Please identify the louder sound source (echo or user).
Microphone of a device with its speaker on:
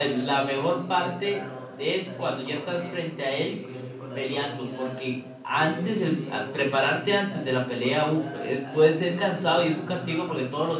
user